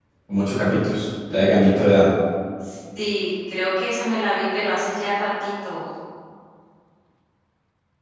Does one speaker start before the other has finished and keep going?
No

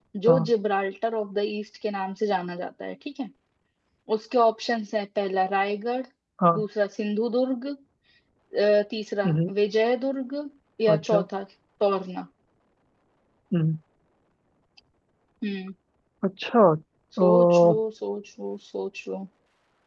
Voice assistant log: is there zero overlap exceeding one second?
Yes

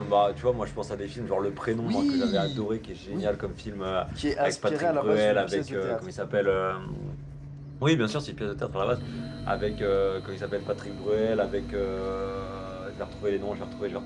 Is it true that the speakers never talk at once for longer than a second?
No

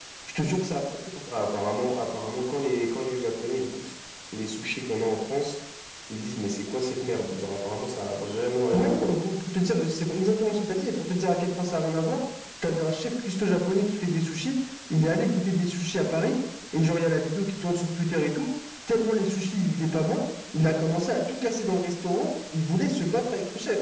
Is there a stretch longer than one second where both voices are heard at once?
No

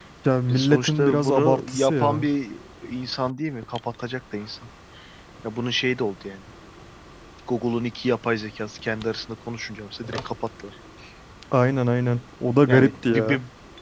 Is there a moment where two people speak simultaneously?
Yes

